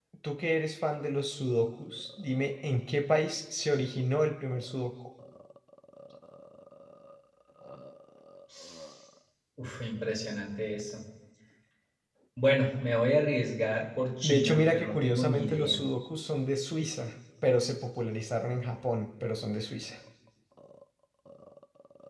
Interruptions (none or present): present